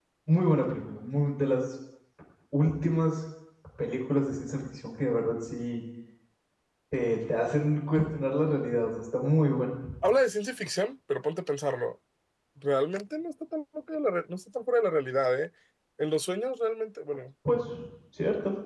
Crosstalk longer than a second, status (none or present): none